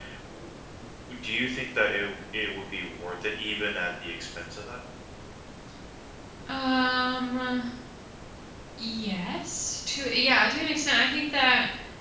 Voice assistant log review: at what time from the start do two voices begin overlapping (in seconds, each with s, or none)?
none